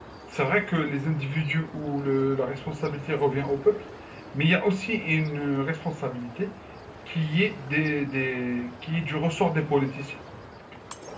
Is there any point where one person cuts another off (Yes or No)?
No